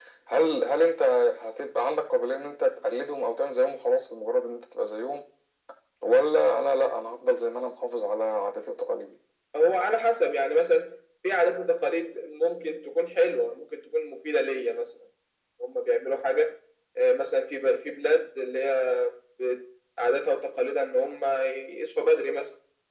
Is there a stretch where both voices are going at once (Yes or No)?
No